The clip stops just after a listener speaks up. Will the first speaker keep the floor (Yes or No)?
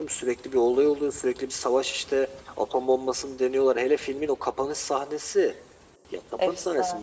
Yes